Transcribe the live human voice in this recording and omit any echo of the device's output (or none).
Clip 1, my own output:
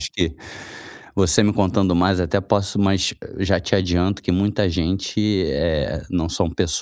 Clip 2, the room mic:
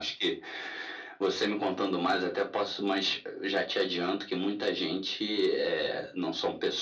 none